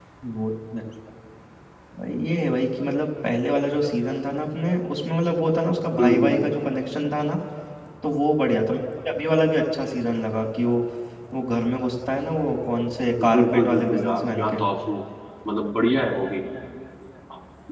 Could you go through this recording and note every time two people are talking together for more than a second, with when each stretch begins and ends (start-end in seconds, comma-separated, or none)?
13.2-14.6